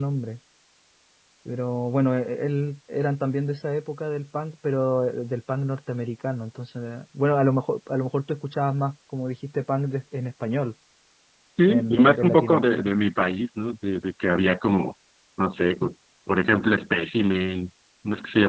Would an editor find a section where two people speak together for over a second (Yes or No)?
Yes